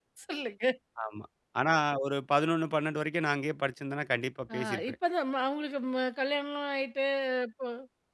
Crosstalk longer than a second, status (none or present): none